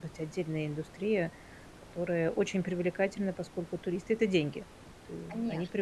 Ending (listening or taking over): taking over